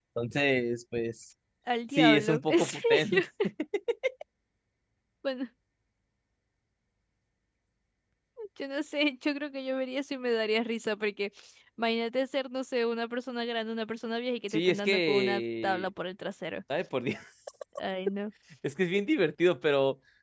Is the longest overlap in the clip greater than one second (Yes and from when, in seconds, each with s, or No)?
Yes, from 2.0 s